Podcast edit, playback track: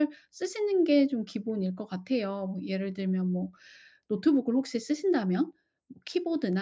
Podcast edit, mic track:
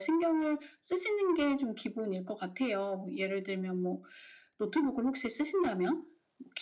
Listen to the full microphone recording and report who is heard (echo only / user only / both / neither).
echo only